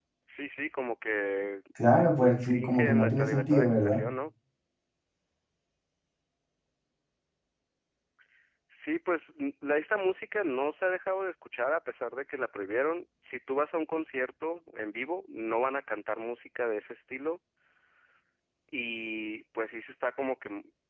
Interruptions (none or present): present